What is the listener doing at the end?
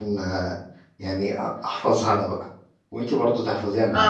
taking over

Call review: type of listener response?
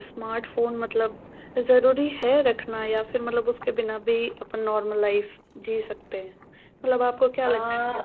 listening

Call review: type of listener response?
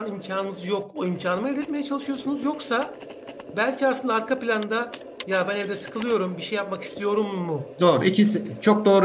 taking over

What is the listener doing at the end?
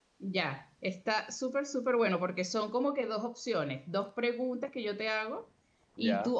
listening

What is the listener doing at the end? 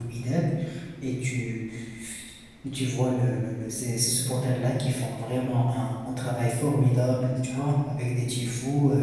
listening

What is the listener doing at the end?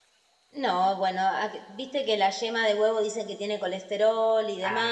taking over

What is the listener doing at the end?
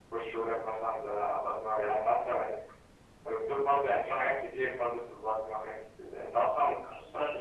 taking over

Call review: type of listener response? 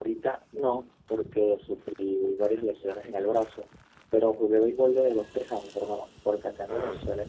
listening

